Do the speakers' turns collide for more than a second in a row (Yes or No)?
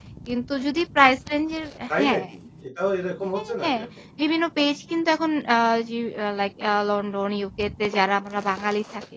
No